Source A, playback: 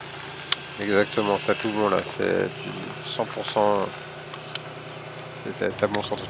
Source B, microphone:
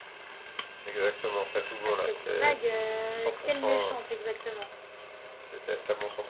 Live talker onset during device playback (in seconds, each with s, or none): 1.8 s